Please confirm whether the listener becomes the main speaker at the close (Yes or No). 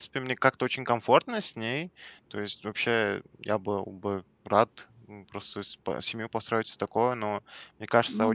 No